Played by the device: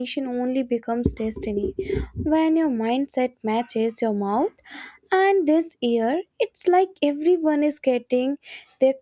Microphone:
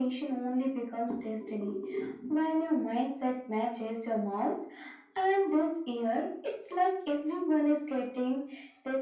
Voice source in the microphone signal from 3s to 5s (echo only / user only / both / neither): echo only